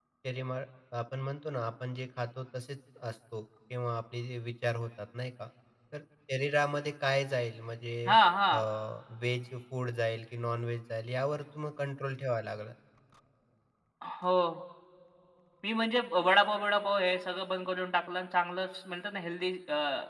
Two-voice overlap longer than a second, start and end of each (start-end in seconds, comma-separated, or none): none